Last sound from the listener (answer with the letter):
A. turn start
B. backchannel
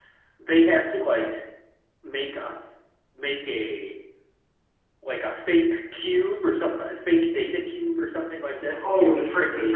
A